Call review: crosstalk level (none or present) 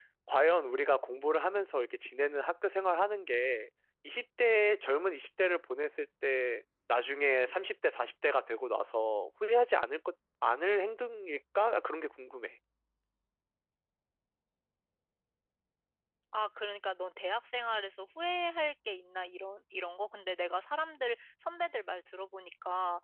none